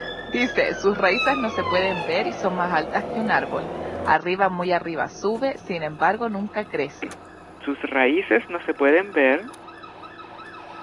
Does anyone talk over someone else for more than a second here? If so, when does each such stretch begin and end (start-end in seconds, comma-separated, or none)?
none